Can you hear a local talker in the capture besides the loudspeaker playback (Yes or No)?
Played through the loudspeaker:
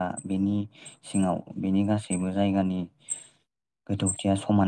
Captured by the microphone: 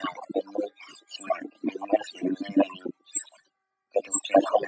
No